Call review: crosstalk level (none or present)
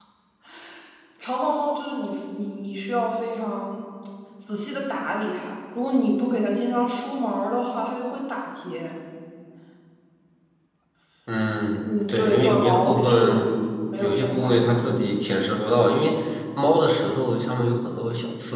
present